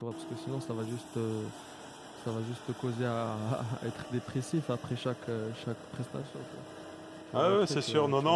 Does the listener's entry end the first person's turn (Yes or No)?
Yes